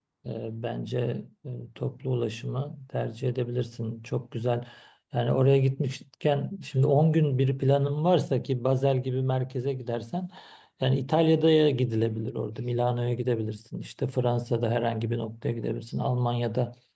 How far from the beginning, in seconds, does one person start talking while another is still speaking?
none

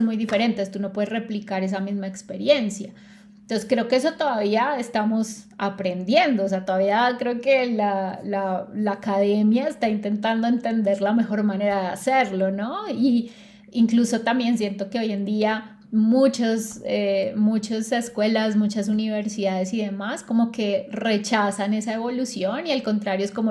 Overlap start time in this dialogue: none

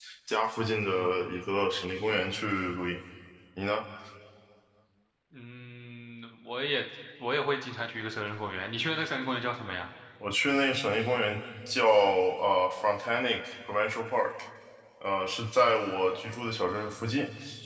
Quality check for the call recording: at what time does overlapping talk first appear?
none

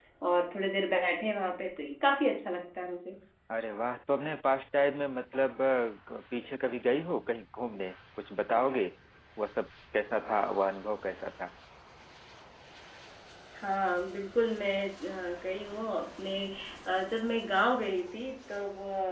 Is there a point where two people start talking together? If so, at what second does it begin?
none

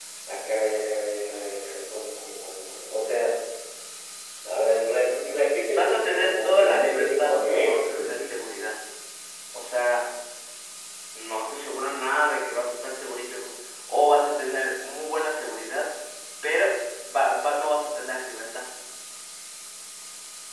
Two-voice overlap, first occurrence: 5.7 s

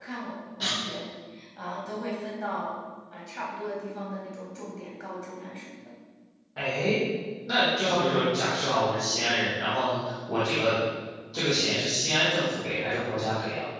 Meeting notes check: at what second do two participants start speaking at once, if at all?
none

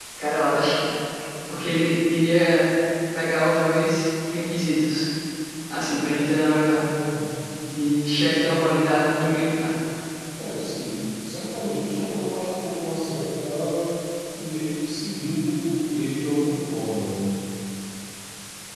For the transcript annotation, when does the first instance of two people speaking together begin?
none

